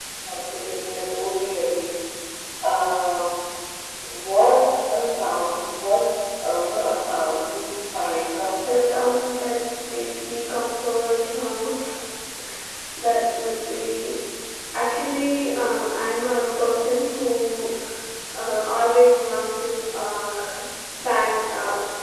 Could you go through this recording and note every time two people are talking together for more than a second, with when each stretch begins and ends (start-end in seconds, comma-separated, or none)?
none